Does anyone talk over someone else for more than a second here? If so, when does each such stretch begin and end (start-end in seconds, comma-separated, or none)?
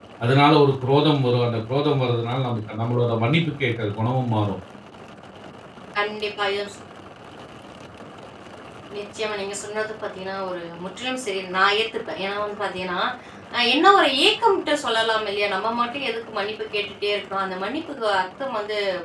none